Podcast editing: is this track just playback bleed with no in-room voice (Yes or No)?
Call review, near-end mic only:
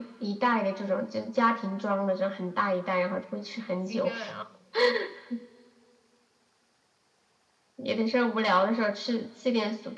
No